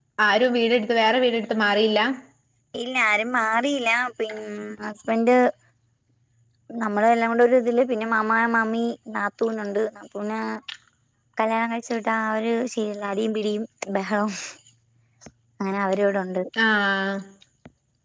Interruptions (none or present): none